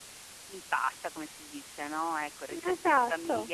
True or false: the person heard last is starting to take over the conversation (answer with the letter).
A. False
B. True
A